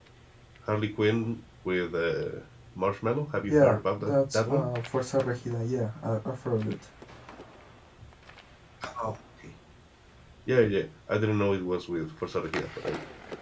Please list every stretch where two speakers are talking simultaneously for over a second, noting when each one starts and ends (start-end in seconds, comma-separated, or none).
3.5-4.8